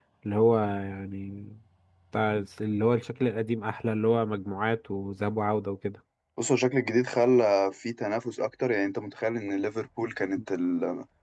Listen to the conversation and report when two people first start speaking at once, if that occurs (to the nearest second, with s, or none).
none